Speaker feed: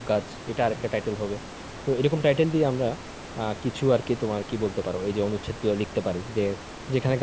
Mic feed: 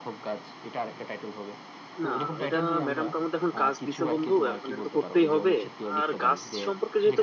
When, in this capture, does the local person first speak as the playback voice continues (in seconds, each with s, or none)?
2.0 s